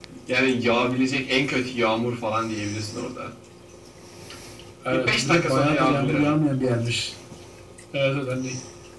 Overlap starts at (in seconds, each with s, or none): 4.9 s